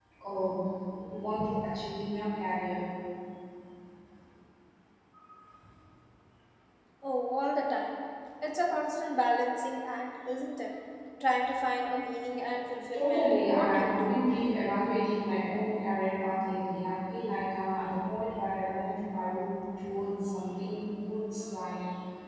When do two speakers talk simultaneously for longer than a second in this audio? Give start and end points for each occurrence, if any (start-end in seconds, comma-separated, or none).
12.9-14.2